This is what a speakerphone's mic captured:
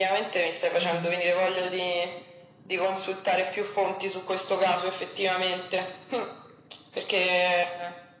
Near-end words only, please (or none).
mhm,